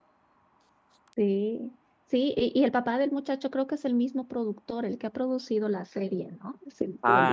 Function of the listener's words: taking over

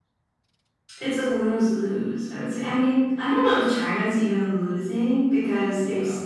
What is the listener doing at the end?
listening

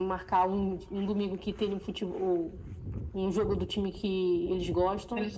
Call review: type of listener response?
listening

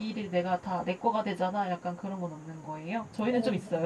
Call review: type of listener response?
taking over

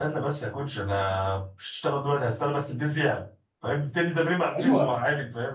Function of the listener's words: taking over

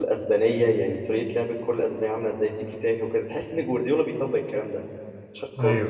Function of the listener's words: listening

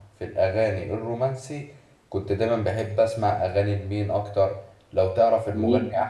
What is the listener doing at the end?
listening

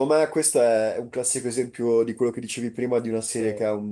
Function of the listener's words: listening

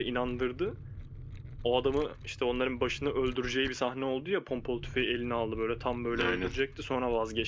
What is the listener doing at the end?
listening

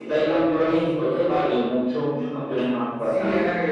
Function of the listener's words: taking over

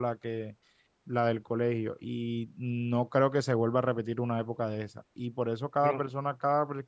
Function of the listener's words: listening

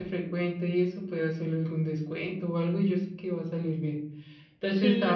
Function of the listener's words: listening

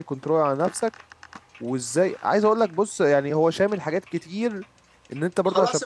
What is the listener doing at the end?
listening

